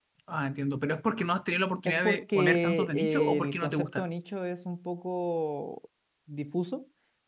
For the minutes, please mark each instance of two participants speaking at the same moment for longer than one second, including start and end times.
1.9-4.0

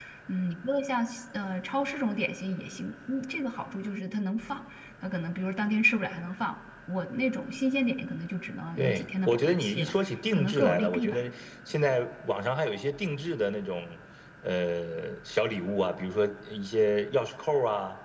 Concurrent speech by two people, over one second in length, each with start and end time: 8.8-11.3

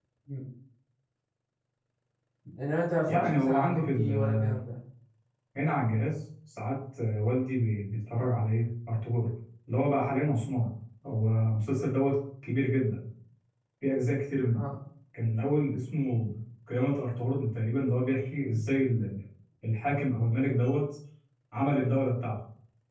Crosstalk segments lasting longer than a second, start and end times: 3.1-4.4

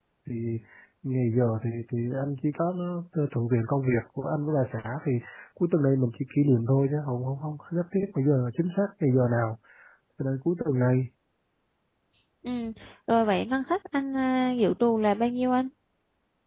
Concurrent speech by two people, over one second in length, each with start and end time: none

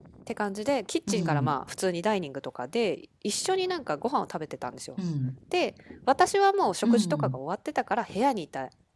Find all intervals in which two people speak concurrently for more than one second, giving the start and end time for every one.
none

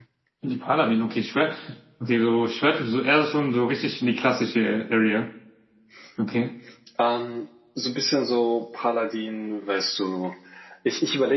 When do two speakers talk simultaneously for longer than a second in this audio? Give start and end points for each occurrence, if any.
none

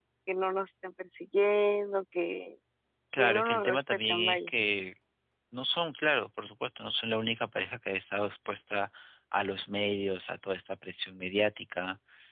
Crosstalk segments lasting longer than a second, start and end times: 3.2-4.5

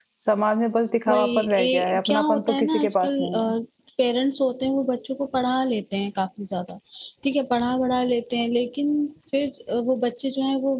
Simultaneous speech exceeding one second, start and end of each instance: 1.1-3.3

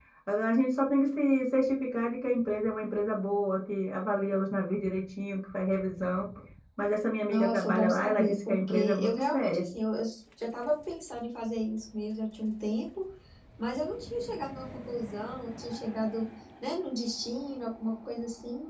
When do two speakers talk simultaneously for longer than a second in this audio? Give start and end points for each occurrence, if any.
7.3-9.6

